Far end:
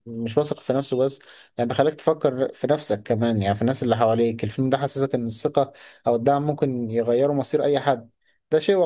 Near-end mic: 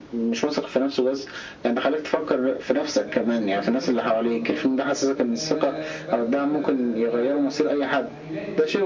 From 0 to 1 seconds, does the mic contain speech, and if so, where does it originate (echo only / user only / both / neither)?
echo only